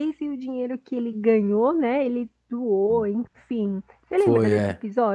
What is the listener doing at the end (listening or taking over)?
taking over